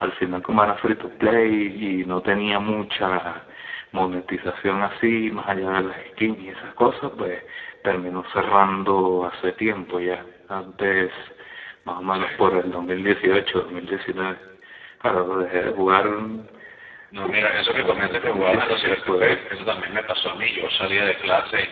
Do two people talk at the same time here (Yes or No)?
Yes